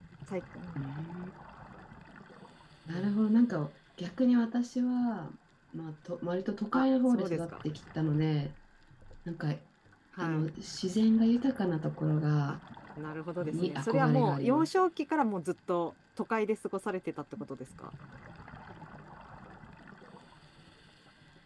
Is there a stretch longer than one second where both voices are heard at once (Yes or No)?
Yes